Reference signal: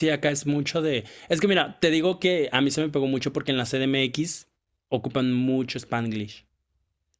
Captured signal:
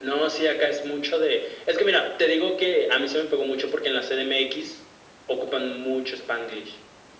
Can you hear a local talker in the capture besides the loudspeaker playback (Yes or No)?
No